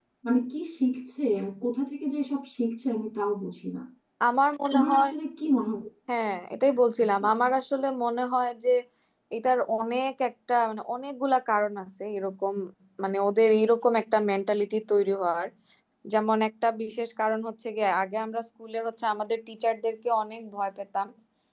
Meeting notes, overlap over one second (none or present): none